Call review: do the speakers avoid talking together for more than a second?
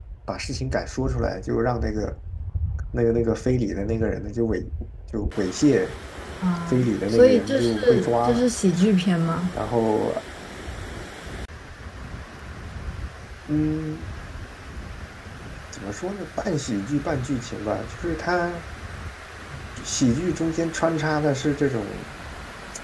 No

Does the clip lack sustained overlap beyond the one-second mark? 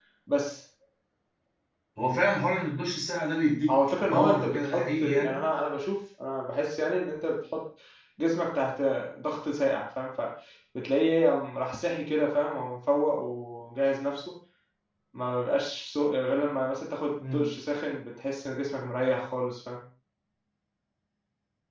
No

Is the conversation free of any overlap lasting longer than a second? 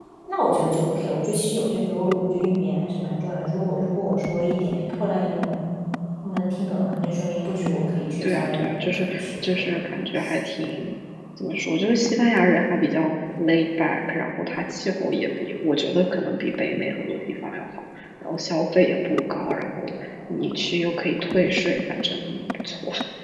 No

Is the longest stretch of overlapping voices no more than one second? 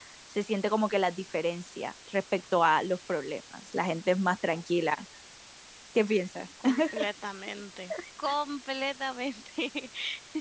Yes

